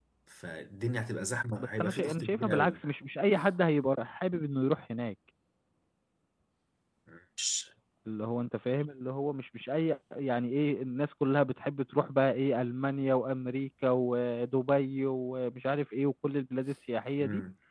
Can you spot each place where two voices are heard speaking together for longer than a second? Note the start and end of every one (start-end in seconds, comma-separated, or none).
1.6-2.8